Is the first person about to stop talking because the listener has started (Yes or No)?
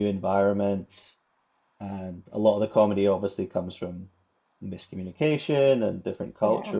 No